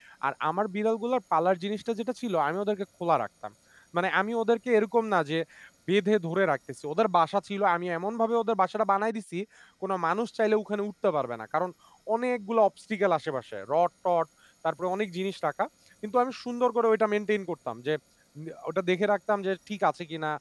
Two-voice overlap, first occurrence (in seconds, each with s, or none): none